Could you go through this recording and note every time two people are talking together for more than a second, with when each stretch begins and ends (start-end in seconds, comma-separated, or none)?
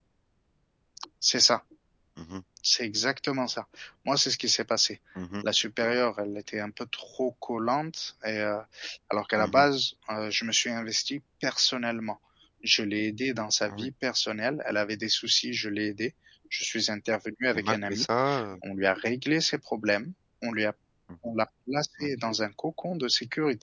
none